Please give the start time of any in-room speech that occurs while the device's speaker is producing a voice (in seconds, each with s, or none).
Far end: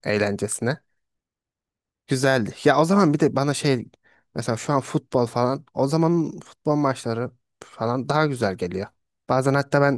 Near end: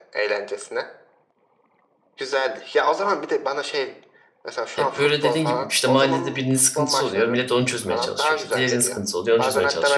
4.7 s